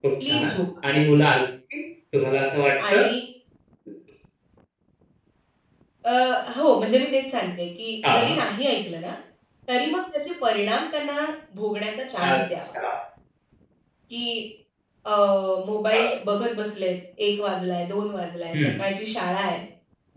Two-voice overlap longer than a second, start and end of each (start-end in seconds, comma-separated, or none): none